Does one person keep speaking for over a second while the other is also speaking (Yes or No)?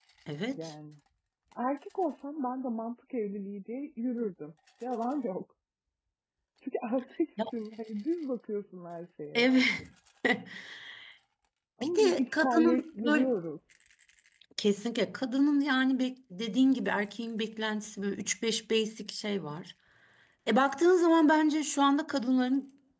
Yes